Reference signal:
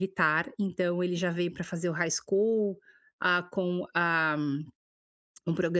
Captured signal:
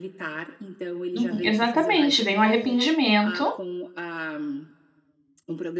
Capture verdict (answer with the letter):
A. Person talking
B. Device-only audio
A